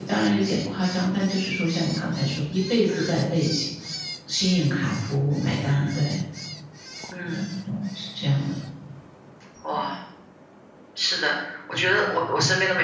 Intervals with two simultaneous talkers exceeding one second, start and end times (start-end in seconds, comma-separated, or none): none